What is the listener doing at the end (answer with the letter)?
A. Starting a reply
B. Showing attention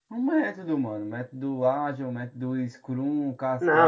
A